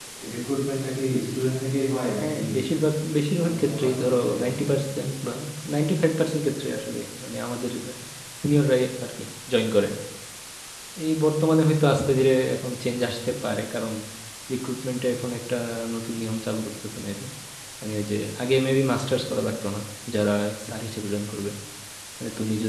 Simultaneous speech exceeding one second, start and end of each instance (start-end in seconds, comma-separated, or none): 3.4-4.8